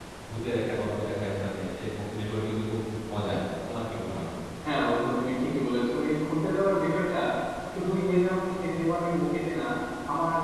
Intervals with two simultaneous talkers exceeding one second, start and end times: none

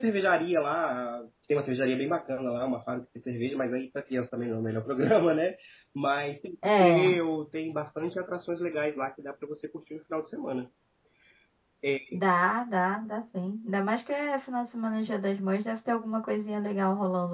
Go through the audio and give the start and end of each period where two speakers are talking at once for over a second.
none

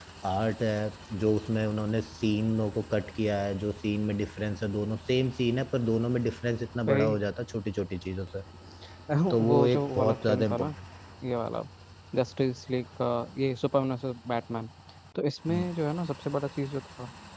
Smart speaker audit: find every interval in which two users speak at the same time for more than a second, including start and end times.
9.5-10.8

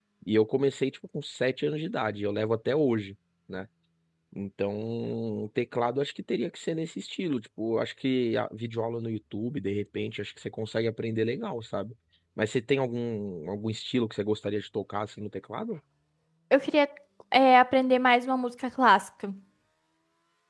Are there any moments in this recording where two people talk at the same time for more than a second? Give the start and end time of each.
none

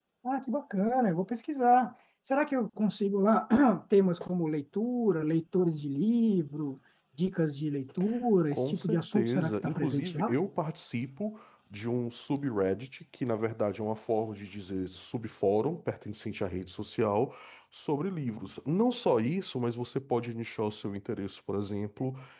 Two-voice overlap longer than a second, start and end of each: 8.5-10.4

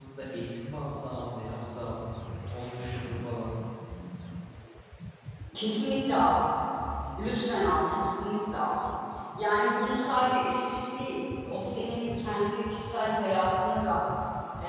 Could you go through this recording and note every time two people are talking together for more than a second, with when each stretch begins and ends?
none

